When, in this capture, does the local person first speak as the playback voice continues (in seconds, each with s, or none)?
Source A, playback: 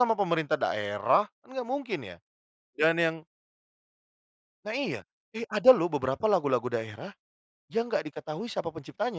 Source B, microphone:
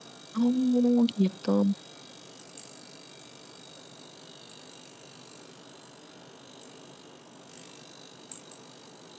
0.3 s